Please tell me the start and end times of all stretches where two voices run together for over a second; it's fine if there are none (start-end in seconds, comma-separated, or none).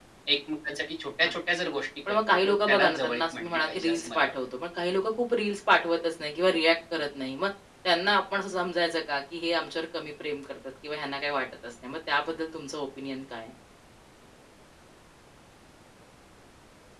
2.1-4.3